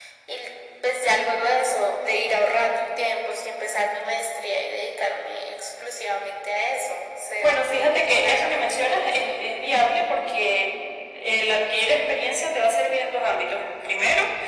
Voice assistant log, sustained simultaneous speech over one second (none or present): present